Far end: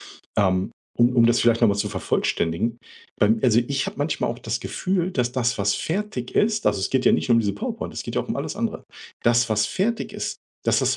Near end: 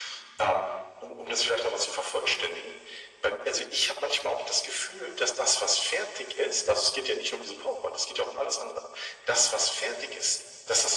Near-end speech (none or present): none